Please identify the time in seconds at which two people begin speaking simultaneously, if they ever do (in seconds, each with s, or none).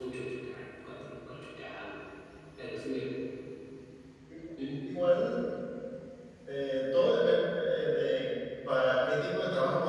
none